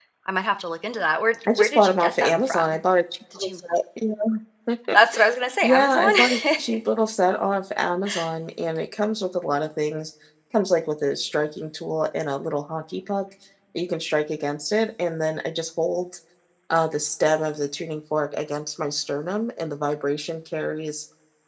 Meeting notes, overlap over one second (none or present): present